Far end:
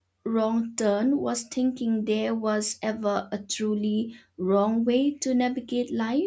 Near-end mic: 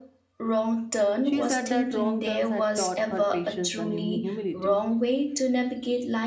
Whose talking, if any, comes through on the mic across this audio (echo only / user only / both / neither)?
both